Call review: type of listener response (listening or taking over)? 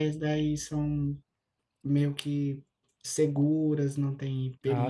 taking over